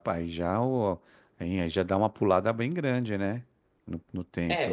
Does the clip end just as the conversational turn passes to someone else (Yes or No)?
Yes